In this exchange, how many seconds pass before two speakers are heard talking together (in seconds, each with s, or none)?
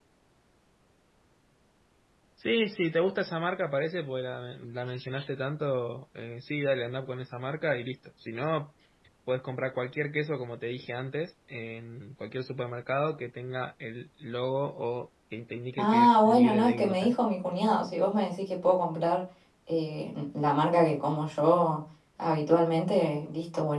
15.8 s